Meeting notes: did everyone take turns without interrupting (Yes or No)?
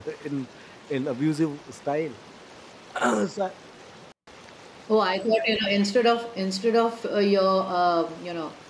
Yes